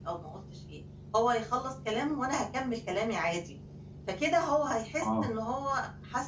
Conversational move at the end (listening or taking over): listening